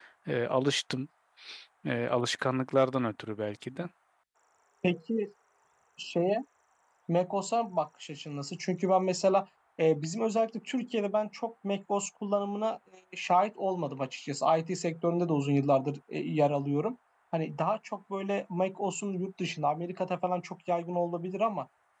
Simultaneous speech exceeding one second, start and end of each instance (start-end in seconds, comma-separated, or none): none